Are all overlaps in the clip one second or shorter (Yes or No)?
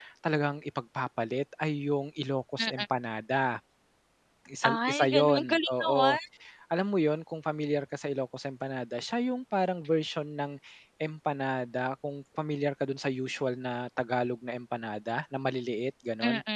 No